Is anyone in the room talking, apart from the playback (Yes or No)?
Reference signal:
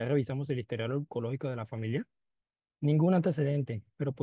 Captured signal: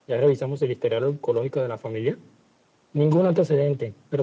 No